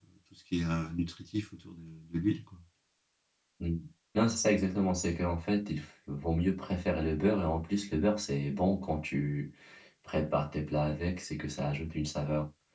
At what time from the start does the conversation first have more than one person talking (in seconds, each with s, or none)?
none